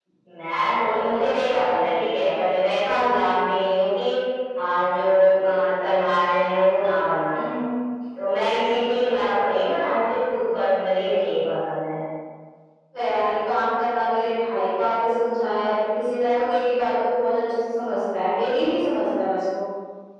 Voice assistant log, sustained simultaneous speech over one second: none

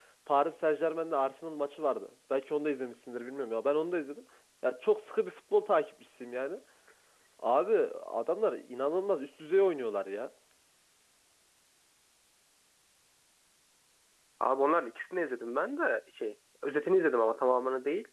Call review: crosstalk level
none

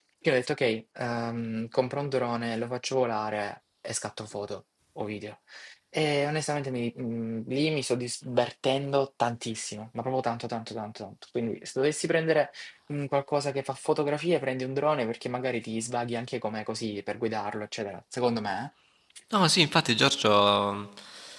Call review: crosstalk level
none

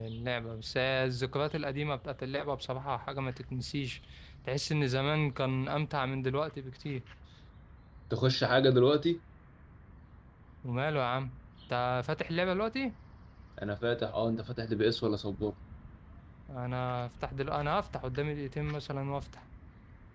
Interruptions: none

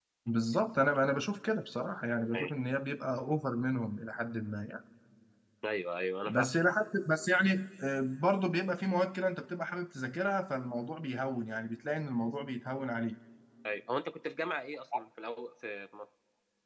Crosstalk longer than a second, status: none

